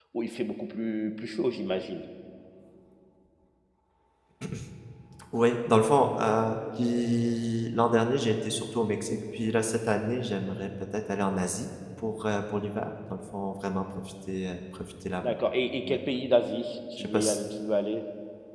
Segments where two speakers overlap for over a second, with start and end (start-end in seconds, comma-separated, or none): none